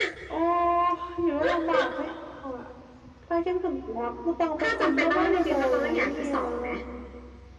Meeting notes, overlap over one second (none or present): present